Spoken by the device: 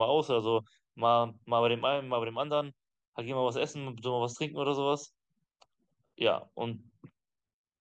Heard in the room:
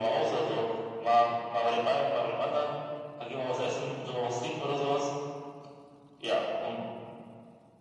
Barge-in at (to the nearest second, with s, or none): none